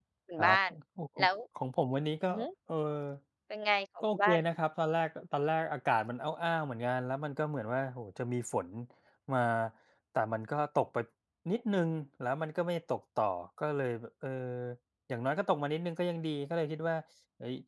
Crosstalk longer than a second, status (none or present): none